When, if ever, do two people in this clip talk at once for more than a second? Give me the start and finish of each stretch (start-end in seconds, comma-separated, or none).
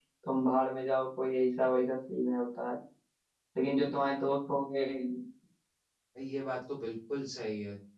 none